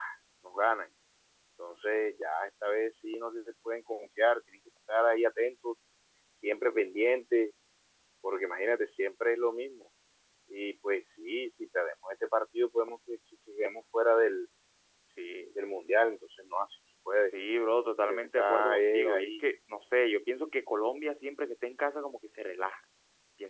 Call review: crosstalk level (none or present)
present